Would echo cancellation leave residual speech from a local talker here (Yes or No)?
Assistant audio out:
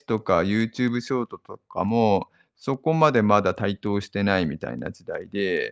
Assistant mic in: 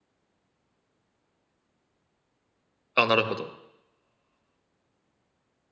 Yes